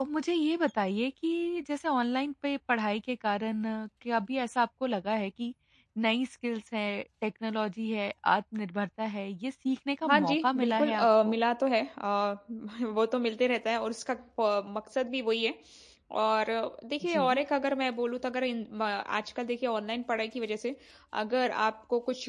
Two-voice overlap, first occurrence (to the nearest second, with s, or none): 10 s